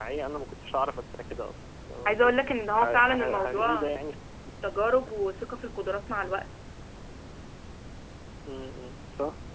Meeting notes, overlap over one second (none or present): present